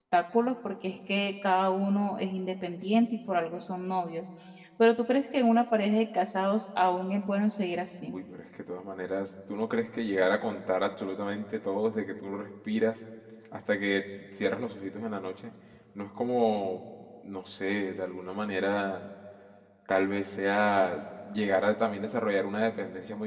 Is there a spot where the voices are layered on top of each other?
No

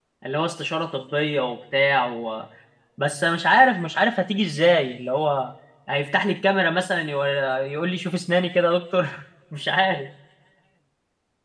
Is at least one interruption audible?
No

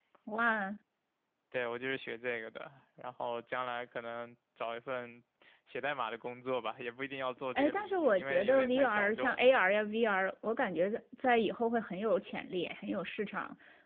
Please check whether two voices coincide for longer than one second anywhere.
Yes, from 7.5 s

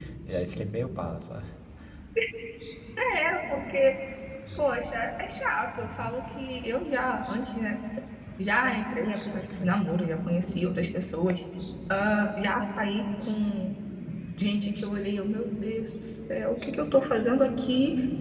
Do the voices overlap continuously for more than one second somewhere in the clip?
No

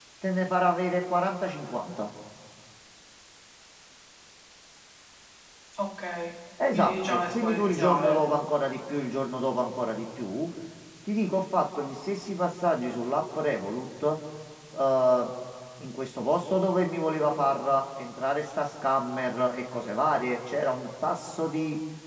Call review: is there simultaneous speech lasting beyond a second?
Yes, from 6.6 s

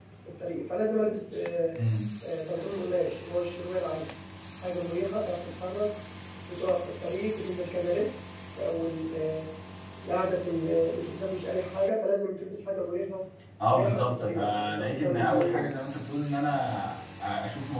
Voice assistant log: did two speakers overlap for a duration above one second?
Yes, from 13.7 s

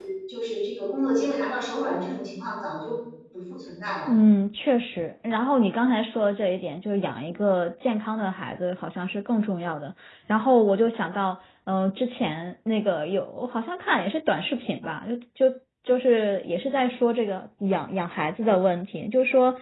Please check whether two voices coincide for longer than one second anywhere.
No

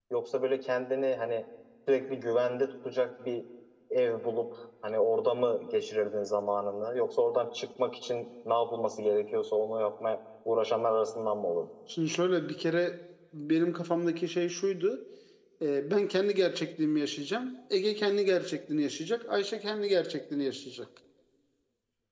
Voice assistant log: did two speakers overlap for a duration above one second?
No

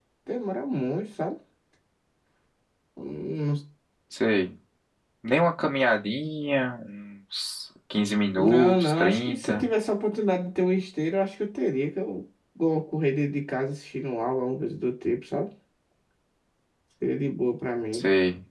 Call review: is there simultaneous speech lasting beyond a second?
Yes, from 8.3 s

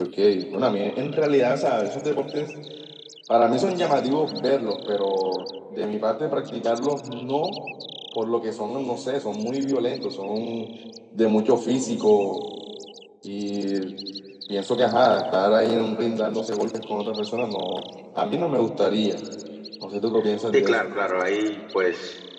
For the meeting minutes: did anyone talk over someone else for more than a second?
No

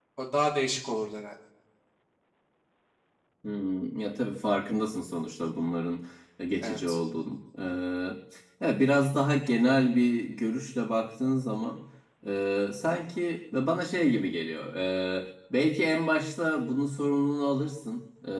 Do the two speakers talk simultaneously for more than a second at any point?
No

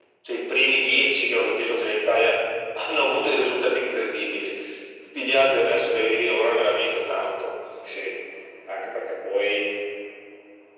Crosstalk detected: No

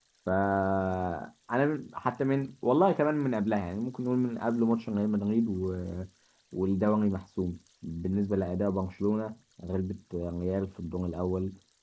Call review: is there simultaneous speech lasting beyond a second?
No

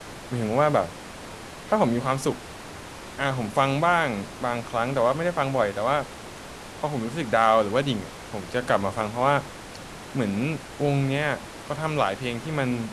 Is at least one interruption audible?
No

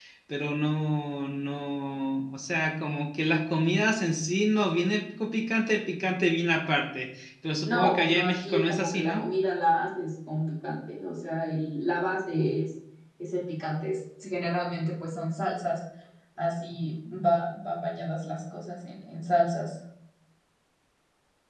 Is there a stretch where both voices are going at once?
Yes, from 7.7 s

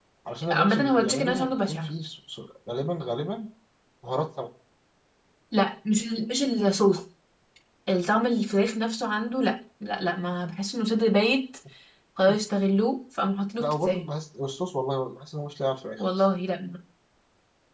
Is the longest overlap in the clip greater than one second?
Yes, from 0.5 s

